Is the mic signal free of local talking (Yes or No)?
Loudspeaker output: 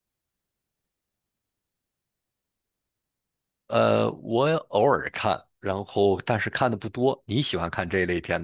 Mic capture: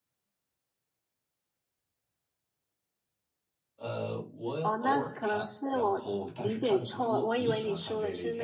No